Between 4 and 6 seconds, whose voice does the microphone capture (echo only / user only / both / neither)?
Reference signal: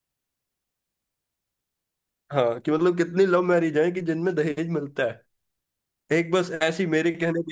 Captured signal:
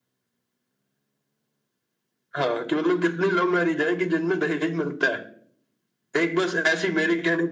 echo only